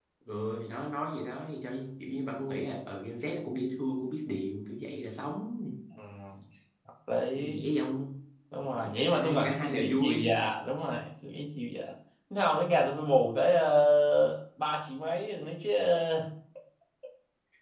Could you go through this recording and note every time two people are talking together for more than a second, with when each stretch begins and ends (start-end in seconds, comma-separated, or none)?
9.1-10.3